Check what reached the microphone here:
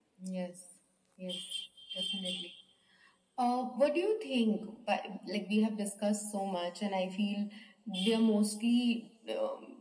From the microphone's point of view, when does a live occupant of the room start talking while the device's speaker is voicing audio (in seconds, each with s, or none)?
none